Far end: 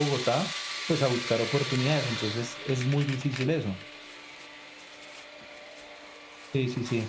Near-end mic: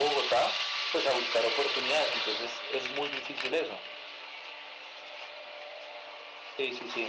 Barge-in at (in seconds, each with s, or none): none